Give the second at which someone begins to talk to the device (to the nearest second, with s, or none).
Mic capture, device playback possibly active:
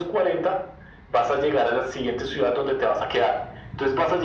none